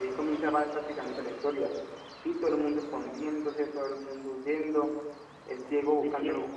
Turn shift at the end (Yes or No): No